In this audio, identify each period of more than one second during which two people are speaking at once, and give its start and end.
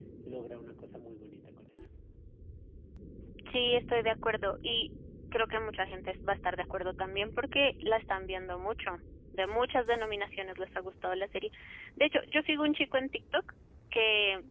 none

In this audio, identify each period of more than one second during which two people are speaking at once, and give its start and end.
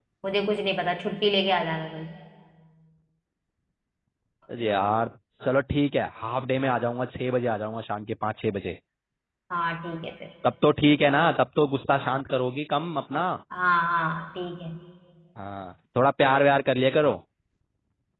none

